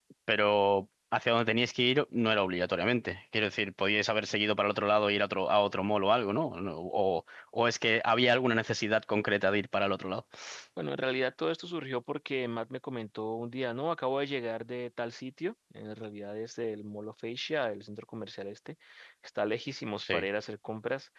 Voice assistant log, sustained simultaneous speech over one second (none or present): none